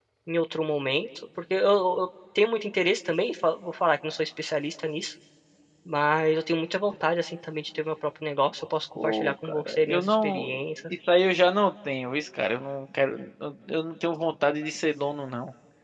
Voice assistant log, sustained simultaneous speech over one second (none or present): present